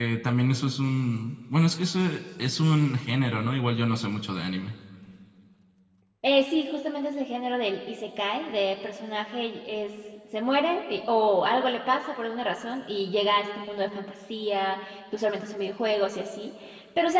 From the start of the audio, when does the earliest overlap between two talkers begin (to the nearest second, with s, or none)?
none